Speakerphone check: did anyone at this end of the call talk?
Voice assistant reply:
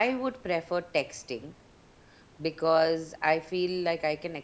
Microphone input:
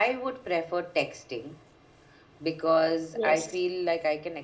Yes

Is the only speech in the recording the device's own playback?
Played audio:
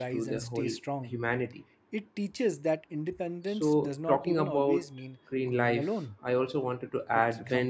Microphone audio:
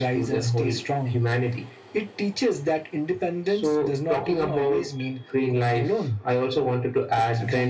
Yes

